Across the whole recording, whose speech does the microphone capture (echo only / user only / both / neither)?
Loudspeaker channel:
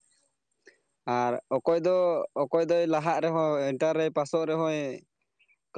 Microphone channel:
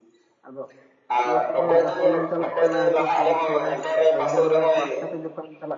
both